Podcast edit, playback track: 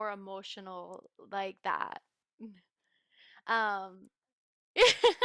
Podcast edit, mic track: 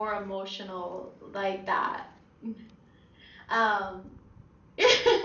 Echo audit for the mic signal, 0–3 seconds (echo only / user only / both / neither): echo only